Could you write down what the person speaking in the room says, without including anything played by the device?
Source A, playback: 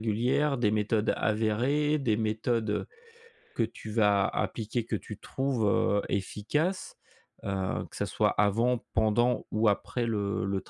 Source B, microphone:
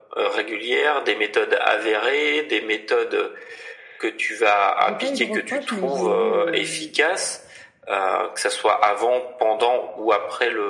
J'ai pas eu de reproches, mais j'ai eu, hem,

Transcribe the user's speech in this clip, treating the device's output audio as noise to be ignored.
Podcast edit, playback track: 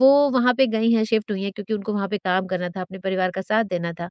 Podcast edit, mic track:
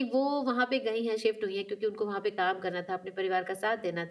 none

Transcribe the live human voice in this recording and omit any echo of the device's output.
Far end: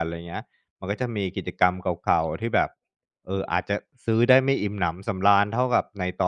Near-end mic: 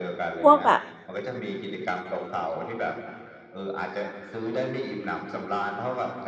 พวกแบบ

